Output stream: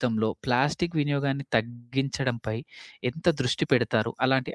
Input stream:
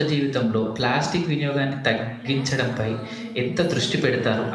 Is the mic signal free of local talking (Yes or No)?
No